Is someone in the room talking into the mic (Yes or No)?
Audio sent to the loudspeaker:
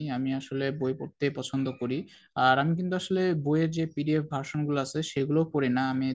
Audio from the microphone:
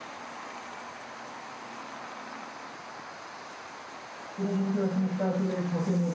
Yes